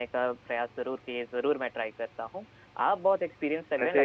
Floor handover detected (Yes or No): No